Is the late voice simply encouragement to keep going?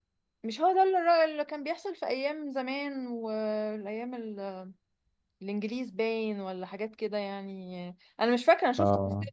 Yes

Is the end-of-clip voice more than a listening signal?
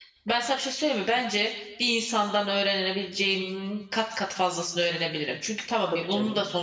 No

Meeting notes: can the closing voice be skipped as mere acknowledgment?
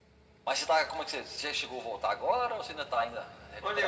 No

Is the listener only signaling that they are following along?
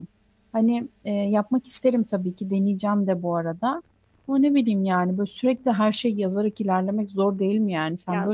No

